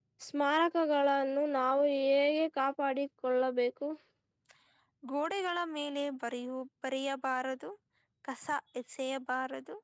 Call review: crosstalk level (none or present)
none